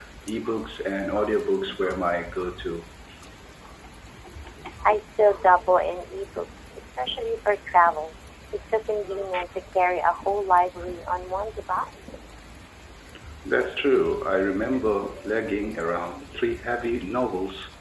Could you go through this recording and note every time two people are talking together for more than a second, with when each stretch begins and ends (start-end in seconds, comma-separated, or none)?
none